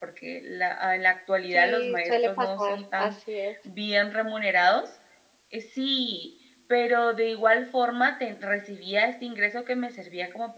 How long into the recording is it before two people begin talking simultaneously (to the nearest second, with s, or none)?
2 s